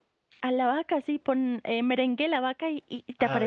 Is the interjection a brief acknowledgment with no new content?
No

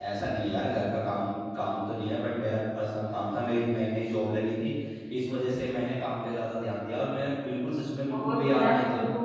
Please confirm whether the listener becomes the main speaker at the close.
Yes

